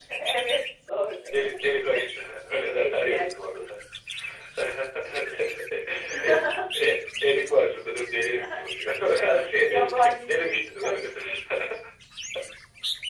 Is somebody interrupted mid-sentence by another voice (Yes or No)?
Yes